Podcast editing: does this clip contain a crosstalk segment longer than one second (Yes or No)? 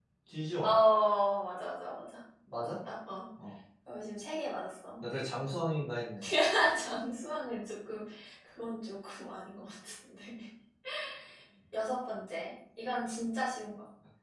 No